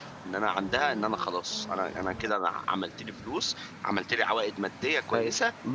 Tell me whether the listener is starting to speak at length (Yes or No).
Yes